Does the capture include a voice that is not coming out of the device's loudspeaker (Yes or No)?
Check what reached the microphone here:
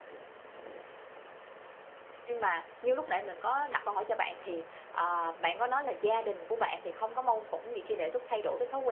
Yes